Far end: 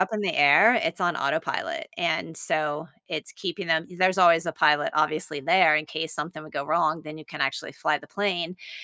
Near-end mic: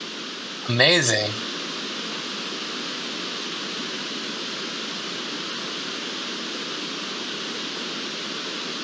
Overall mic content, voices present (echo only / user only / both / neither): user only